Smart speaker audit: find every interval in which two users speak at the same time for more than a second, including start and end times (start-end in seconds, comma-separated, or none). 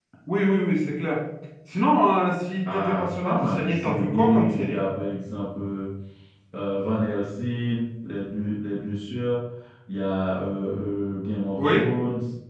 2.7-4.8